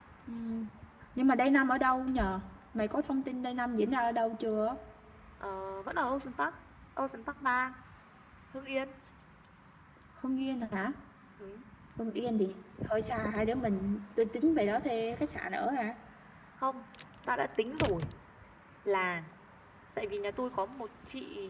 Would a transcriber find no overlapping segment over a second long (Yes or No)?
Yes